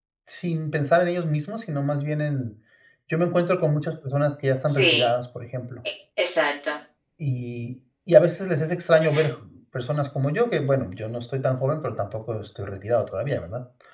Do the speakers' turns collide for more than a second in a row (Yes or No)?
No